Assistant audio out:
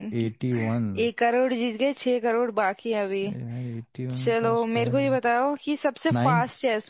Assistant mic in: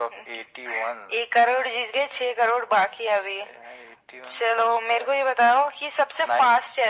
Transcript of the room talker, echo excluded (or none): none